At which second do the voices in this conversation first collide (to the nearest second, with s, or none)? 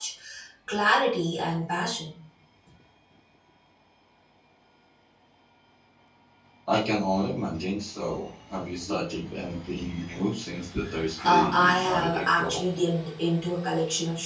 11 s